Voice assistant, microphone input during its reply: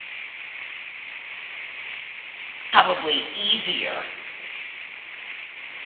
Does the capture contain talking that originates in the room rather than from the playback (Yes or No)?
Yes